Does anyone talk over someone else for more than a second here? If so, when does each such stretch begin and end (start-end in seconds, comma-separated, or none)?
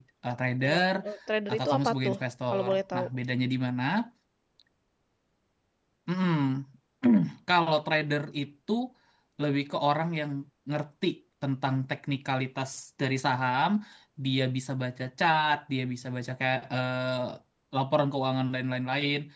1.5-3.1